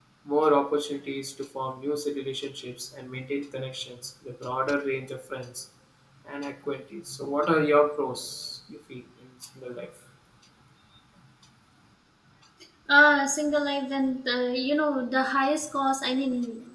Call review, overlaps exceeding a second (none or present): none